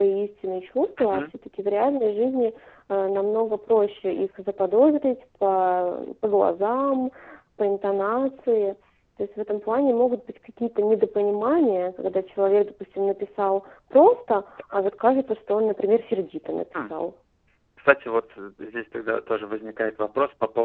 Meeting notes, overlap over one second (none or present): none